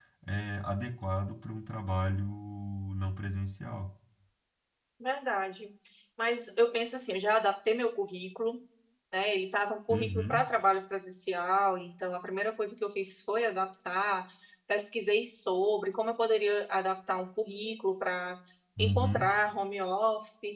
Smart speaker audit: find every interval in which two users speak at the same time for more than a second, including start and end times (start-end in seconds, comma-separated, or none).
none